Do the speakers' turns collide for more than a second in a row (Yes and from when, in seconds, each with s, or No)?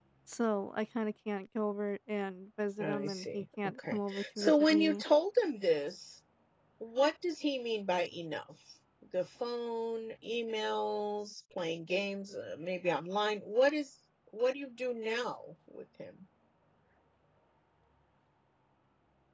Yes, from 2.8 s